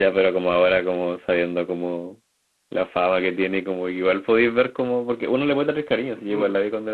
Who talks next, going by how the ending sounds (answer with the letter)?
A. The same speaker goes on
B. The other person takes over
B